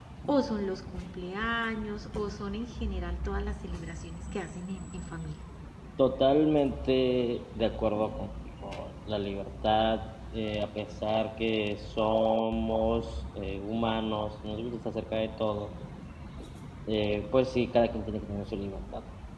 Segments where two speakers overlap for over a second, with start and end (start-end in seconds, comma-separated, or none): none